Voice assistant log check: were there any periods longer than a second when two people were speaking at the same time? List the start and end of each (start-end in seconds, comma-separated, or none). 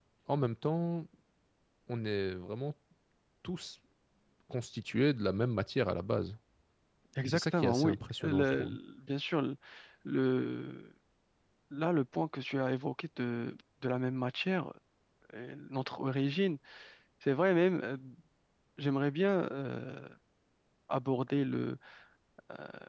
7.2-8.8